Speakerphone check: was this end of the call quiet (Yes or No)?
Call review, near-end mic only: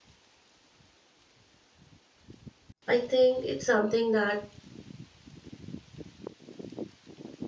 No